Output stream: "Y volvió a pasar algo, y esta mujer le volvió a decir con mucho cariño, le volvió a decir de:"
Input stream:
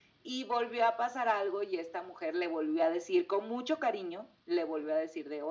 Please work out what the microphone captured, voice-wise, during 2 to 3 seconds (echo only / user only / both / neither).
echo only